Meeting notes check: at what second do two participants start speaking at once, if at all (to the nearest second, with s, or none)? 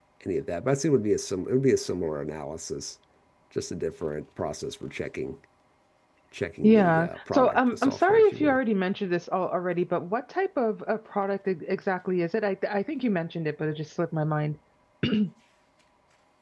7 s